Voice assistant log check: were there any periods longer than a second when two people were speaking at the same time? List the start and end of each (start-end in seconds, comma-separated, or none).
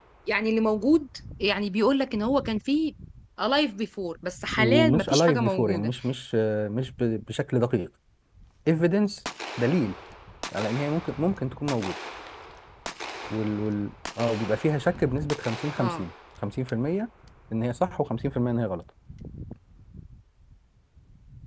4.6-5.9